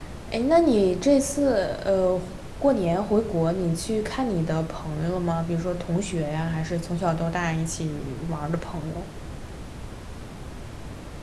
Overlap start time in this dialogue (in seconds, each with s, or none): none